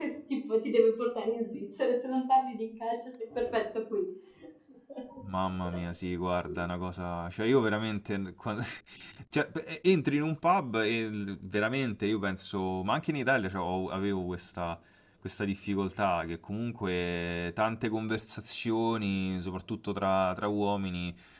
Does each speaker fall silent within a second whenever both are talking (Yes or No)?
Yes